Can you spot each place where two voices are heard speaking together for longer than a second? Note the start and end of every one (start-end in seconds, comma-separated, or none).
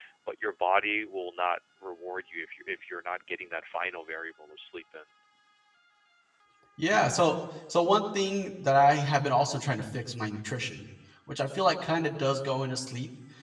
none